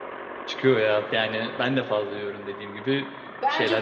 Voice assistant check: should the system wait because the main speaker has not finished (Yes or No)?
No